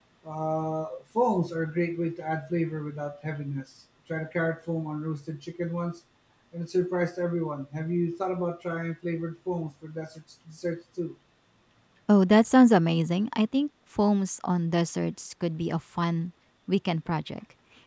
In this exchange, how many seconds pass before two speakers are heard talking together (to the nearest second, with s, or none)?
none